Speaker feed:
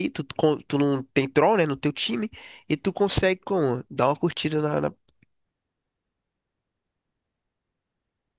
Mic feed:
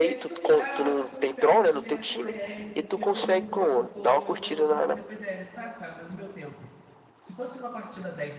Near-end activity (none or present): present